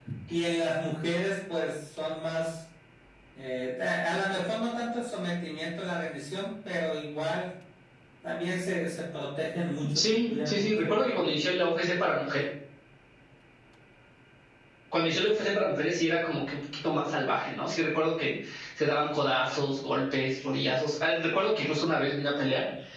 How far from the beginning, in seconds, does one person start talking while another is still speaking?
9.8 s

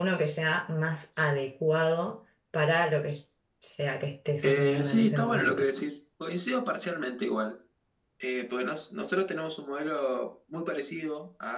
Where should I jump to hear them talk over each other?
4.4 s

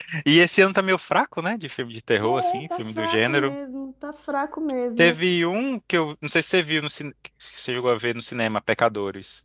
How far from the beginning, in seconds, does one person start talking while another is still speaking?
2.2 s

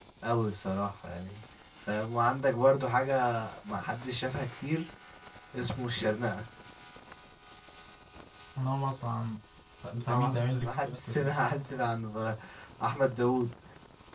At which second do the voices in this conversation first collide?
10.1 s

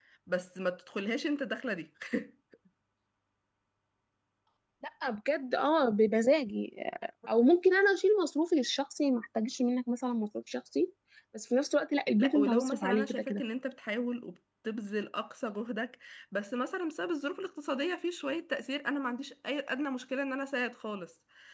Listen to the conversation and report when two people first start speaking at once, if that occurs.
12.2 s

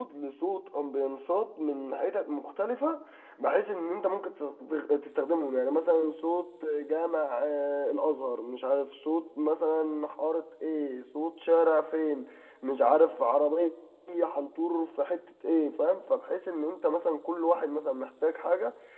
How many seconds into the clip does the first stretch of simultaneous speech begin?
none

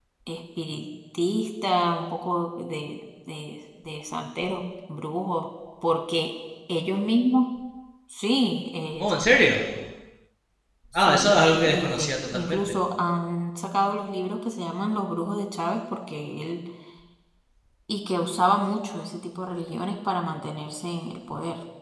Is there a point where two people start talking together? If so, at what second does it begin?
10.9 s

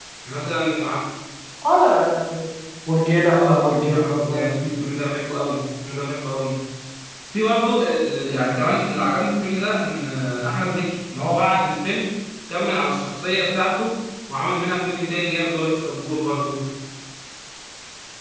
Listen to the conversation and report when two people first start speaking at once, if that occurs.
3.3 s

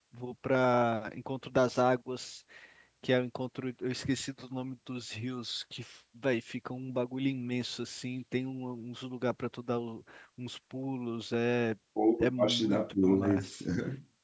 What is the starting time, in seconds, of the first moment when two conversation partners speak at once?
12.2 s

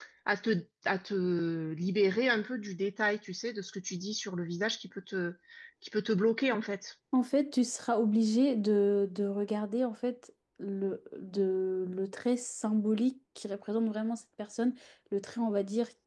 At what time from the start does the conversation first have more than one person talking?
none

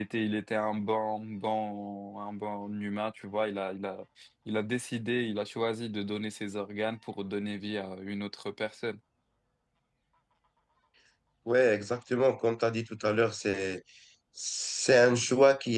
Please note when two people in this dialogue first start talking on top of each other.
none

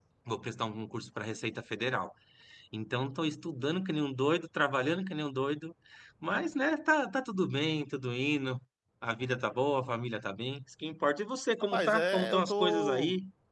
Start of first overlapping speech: 11.7 s

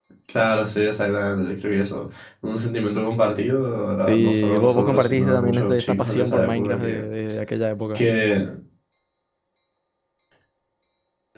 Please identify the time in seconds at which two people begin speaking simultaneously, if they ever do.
4.1 s

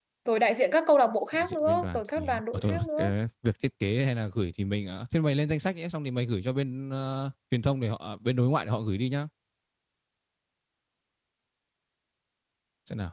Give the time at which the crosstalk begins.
1.3 s

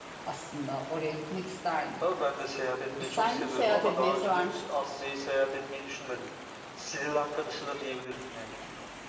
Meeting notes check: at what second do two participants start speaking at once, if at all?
3.0 s

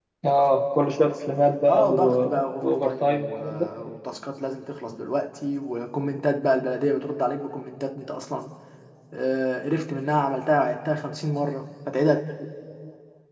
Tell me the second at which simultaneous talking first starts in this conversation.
1.7 s

